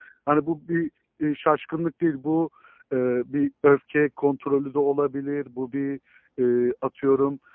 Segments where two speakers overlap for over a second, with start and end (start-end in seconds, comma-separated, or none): none